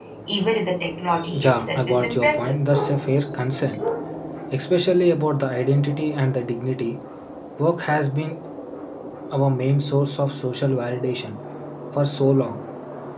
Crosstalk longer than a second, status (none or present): present